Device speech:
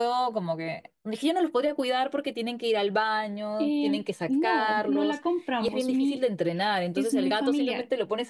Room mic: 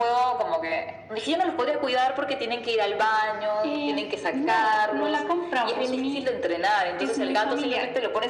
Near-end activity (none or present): none